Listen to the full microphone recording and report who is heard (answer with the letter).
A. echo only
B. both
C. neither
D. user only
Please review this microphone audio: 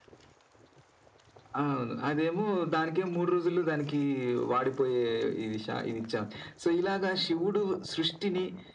A